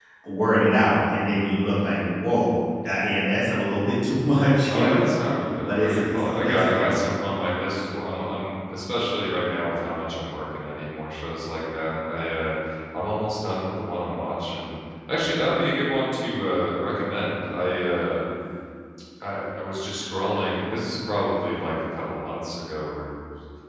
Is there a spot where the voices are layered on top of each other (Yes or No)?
Yes